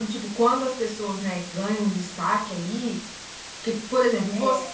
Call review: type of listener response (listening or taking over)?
listening